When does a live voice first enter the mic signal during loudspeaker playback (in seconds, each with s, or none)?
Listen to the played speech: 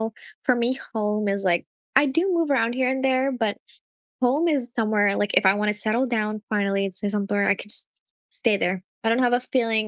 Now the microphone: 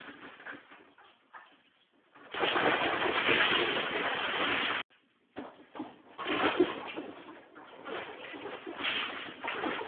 none